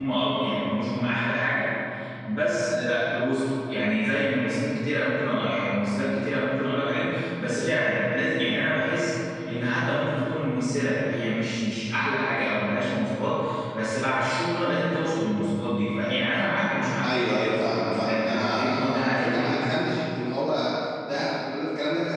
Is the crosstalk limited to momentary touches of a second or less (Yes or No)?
No